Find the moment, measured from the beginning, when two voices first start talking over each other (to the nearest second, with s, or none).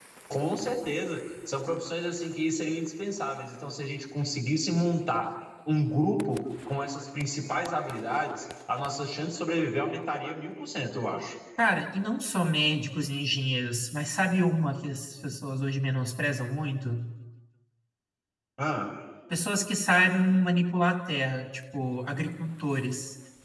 none